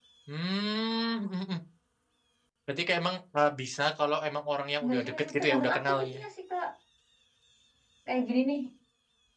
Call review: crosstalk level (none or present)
present